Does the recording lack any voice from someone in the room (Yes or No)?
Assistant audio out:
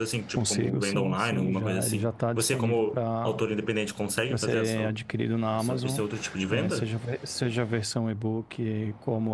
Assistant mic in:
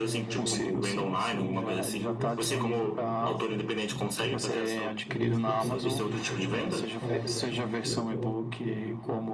No